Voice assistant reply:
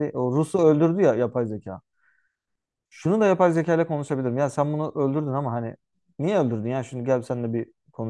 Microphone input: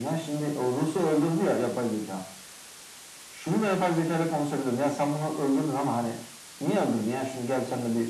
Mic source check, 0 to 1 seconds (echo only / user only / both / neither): echo only